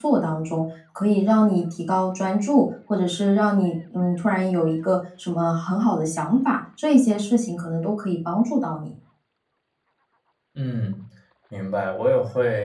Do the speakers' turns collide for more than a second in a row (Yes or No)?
No